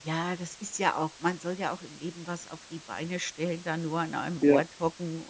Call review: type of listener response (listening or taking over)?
listening